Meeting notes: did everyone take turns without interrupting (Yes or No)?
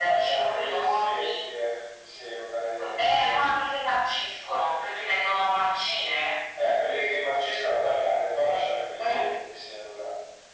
No